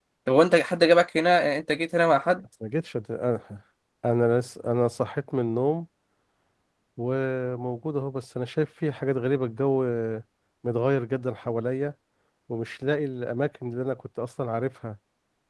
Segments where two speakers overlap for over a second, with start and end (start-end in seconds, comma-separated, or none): none